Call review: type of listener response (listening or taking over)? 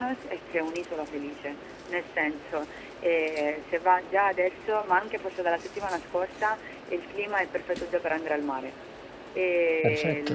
listening